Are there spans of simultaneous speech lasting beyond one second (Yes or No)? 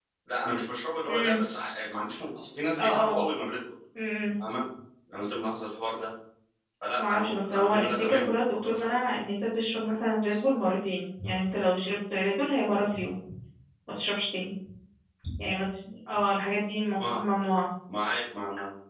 Yes